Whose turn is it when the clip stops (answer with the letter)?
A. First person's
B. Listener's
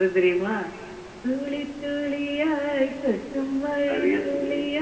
A